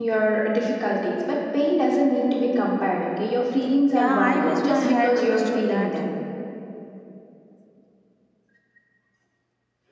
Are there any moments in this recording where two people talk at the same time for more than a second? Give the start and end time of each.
3.9-6.0

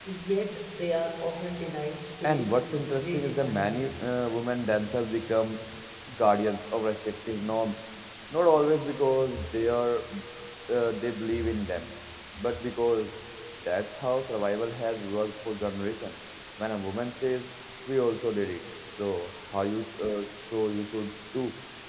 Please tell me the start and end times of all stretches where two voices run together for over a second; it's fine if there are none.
2.2-3.8

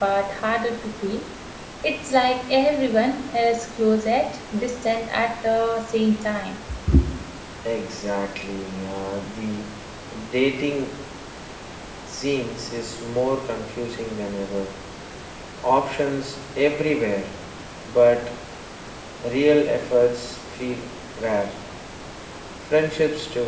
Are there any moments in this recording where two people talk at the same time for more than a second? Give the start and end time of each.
none

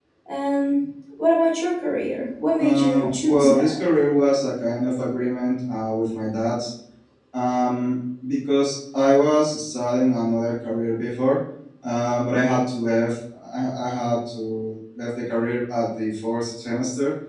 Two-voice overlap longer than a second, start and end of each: 2.6-3.8

